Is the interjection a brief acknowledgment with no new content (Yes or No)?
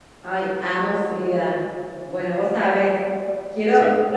Yes